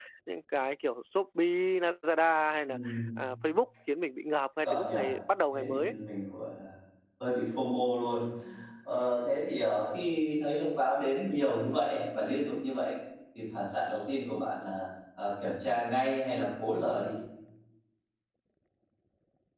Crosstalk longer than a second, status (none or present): none